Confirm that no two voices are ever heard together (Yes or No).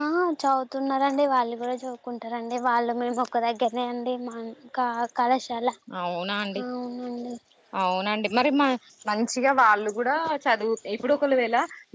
Yes